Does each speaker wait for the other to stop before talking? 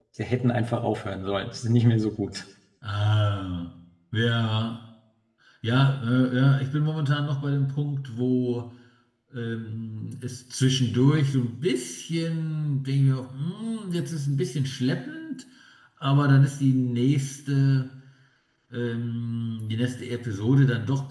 Yes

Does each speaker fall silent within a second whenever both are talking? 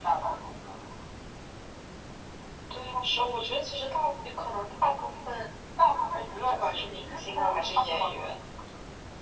No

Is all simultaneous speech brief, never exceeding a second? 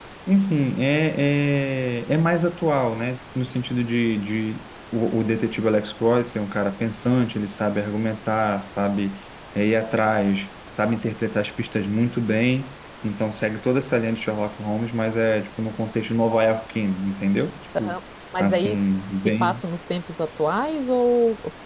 Yes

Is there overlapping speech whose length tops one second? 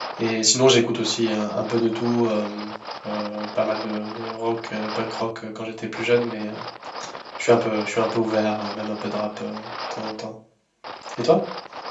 No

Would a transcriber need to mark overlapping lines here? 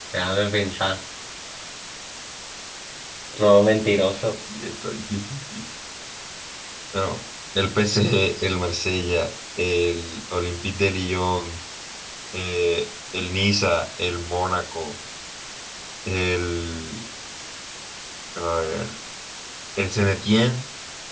No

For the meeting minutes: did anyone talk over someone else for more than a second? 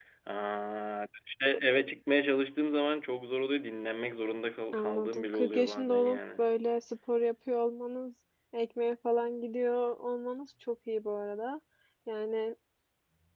Yes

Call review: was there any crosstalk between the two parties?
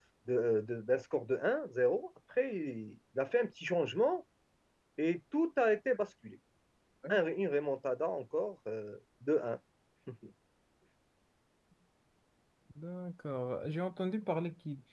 No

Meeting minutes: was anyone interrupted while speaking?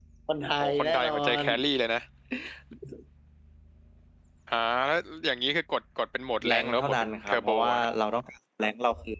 Yes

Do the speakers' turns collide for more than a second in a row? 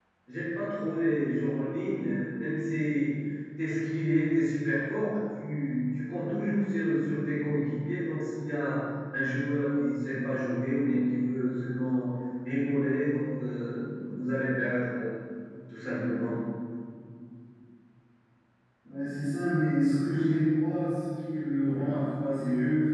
No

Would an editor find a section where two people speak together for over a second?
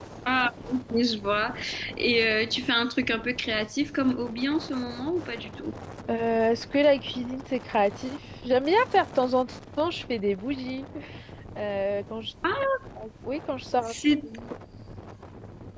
No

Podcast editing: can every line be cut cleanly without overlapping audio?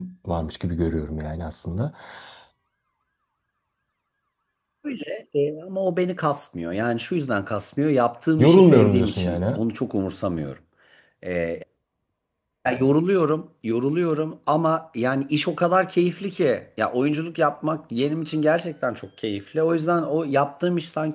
No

